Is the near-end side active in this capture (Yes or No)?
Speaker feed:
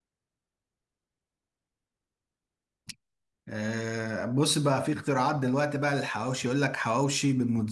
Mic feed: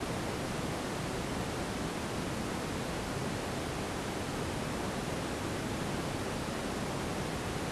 No